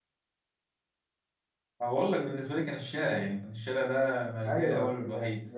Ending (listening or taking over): taking over